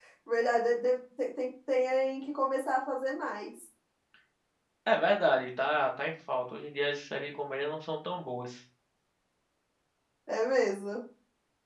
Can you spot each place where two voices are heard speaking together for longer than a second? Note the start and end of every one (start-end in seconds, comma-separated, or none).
none